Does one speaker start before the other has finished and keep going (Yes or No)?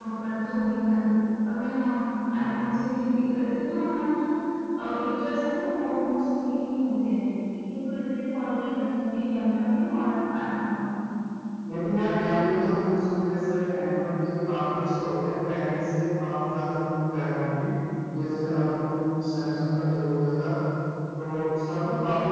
No